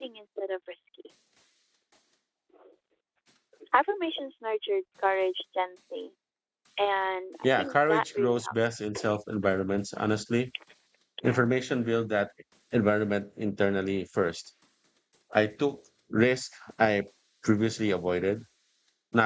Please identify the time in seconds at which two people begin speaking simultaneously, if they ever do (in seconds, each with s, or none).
7.4 s